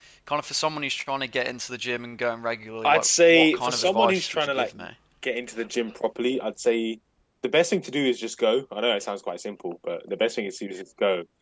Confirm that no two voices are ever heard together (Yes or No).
No